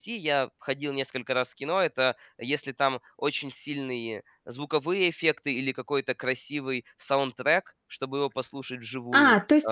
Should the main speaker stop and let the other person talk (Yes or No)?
Yes